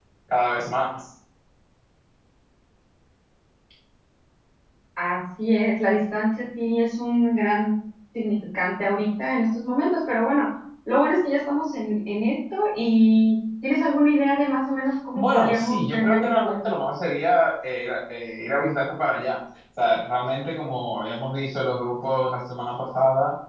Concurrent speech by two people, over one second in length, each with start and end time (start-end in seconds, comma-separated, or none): 15.2-16.5